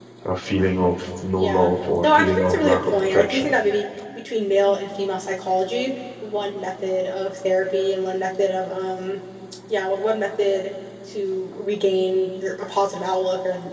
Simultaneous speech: Yes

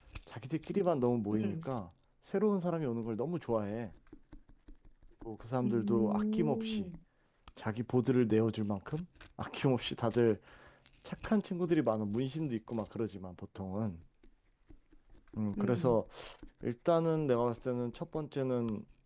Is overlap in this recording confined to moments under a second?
No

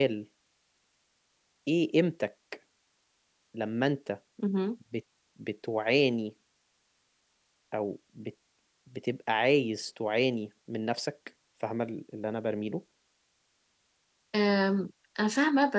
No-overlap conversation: Yes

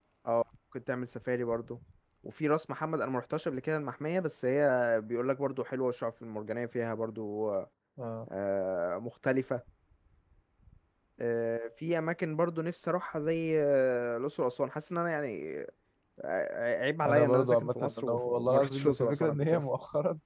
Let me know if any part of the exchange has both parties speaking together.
Yes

